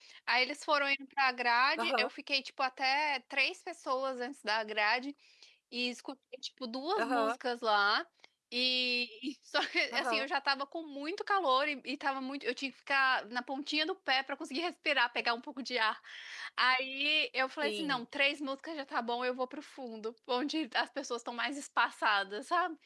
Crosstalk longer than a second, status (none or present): none